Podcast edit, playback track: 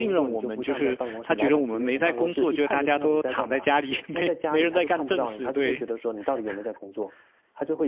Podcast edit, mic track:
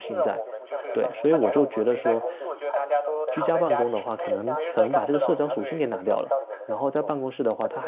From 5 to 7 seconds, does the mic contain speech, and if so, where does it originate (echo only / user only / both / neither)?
both